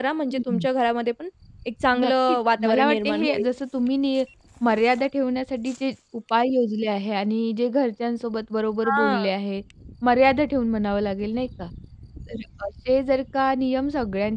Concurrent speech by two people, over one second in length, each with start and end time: 2.0-3.4

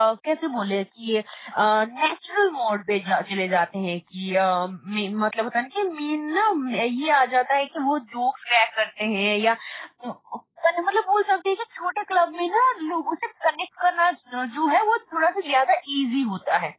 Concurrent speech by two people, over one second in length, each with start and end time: none

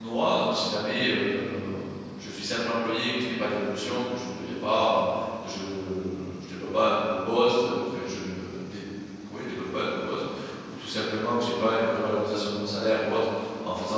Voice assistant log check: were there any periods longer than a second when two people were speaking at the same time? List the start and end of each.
none

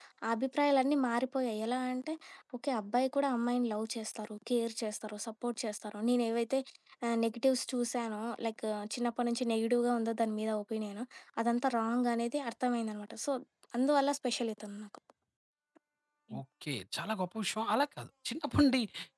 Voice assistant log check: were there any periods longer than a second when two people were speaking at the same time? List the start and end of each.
none

